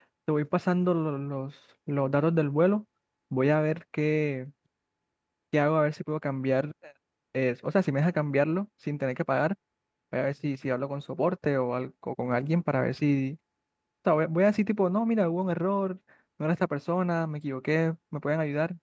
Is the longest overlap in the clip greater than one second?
No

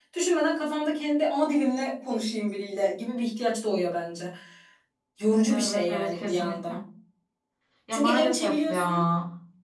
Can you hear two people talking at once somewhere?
Yes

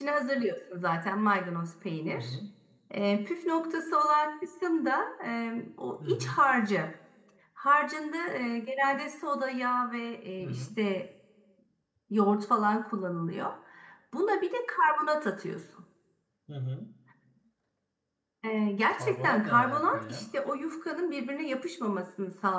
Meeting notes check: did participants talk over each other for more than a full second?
Yes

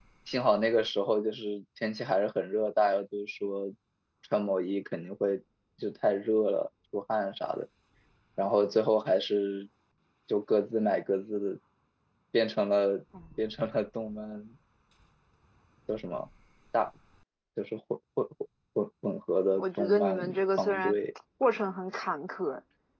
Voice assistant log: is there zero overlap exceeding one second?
No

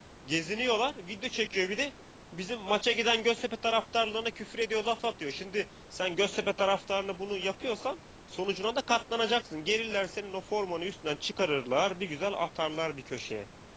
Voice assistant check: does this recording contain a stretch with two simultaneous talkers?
No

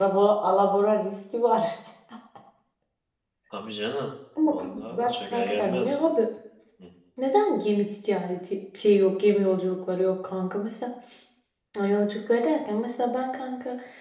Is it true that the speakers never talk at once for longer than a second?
No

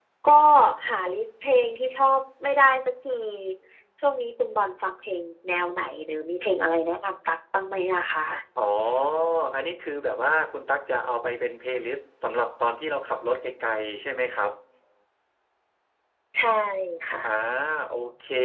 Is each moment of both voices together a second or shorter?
Yes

